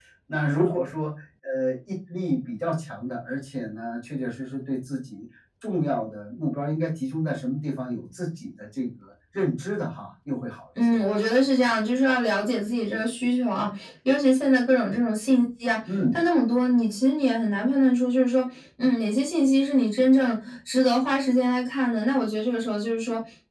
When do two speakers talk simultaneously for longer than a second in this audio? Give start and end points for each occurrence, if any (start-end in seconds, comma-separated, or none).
none